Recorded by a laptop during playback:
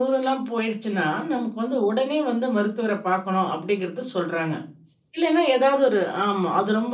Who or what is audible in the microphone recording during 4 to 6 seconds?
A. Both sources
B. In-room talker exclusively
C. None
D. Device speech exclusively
D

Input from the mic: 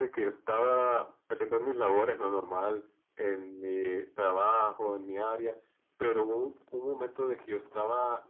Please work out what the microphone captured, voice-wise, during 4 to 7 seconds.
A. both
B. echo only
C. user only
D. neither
B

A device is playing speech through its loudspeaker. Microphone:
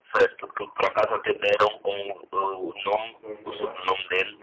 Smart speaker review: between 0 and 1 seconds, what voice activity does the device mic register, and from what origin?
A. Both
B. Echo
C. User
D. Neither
B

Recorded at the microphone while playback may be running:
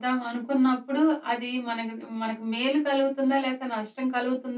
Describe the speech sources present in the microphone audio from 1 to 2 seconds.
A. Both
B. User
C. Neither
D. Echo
D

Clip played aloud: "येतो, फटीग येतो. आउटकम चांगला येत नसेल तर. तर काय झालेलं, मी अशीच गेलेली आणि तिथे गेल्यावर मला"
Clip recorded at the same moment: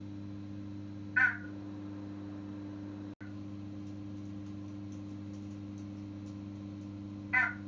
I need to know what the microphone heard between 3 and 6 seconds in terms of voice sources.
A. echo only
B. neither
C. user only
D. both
B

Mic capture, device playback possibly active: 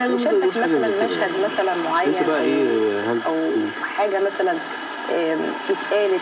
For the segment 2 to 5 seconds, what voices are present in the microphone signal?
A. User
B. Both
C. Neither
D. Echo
D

